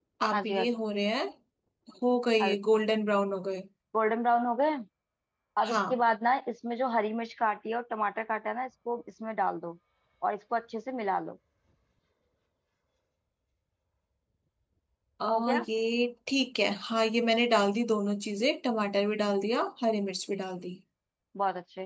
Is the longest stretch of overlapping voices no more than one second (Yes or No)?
Yes